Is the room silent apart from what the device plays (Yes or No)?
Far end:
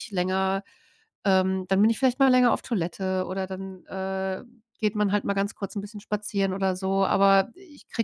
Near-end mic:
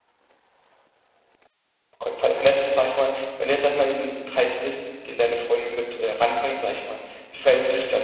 No